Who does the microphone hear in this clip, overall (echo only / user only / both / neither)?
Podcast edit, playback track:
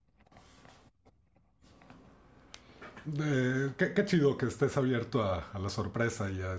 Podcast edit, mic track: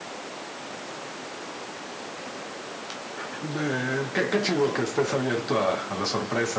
echo only